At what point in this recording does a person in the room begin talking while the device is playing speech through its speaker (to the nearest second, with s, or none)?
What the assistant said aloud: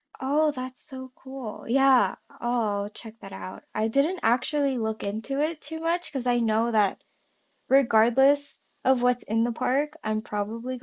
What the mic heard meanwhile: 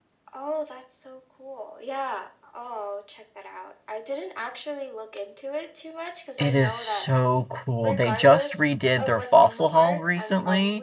6 s